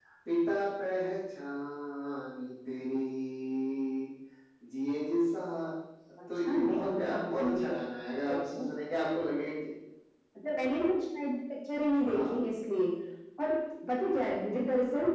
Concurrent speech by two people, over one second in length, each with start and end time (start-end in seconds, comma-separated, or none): 6.5-7.7